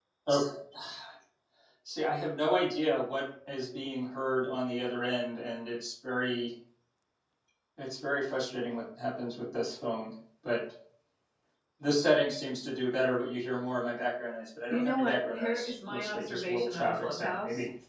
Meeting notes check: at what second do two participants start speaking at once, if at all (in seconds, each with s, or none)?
14.7 s